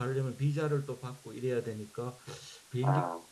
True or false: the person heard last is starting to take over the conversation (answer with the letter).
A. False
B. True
A